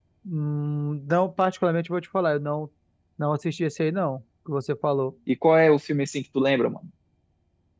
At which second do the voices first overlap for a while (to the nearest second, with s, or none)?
none